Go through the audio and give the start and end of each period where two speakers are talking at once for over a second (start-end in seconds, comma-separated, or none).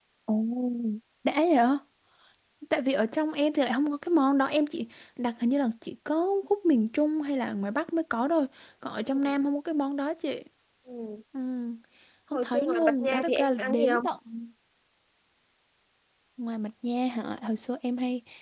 12.3-14.1